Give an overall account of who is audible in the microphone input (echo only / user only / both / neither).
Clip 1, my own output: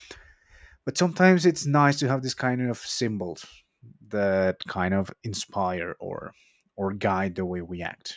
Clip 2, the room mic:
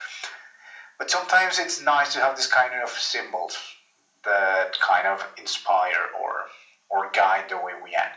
echo only